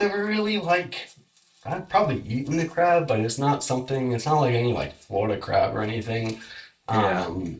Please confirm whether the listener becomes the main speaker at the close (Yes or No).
No